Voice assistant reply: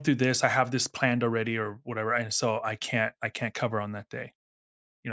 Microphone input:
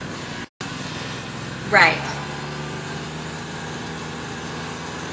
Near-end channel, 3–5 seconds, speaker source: neither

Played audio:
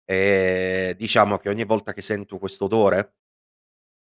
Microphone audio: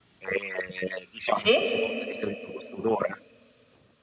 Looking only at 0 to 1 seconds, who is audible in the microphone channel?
echo only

